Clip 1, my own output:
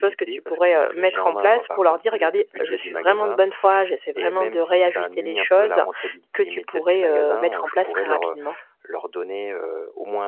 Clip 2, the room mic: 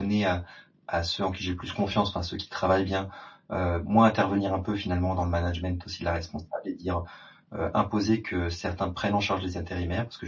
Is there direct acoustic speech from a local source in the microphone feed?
Yes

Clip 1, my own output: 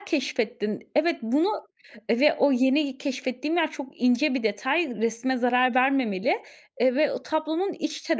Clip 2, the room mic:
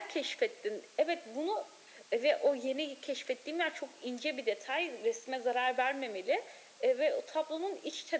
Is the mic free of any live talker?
Yes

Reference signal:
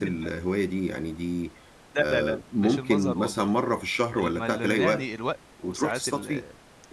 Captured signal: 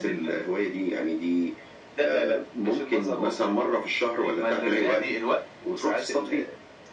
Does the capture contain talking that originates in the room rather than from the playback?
No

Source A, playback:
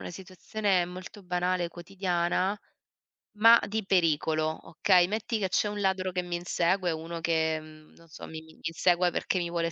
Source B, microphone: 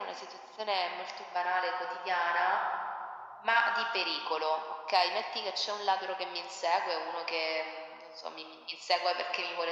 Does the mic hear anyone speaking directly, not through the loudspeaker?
No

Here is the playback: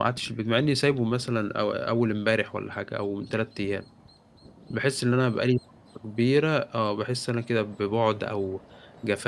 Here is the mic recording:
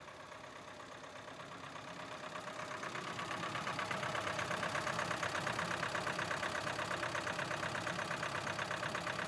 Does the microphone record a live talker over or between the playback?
No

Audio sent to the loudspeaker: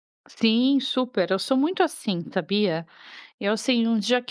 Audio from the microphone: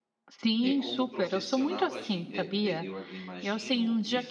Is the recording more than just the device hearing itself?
Yes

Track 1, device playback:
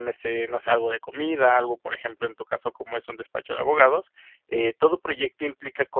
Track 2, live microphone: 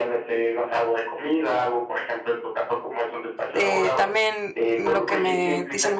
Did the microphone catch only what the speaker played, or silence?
No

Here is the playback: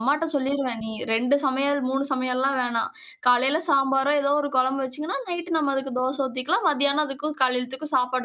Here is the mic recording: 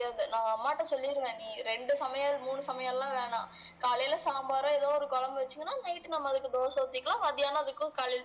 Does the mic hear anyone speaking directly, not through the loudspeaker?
No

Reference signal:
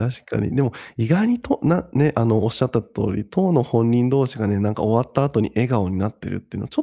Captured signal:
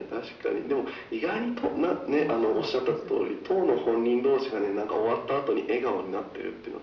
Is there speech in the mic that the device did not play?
Yes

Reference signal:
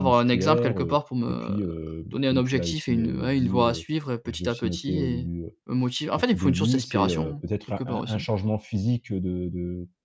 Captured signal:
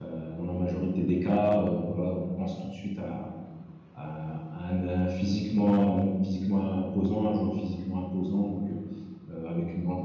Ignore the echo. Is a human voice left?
Yes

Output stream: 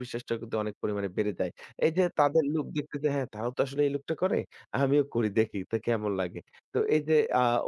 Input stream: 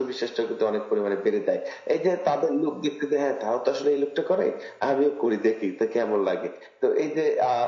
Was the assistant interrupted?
No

